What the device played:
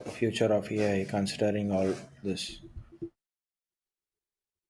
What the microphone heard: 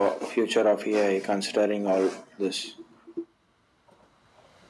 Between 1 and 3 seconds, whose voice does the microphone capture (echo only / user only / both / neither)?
echo only